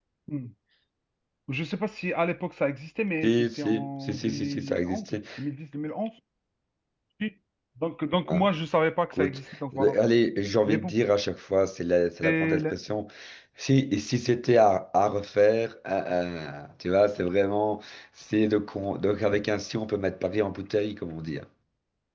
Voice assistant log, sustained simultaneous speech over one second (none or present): present